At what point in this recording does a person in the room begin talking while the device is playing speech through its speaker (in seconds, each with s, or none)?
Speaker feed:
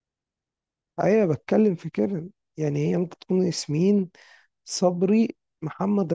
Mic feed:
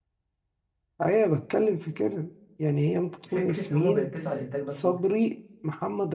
3.2 s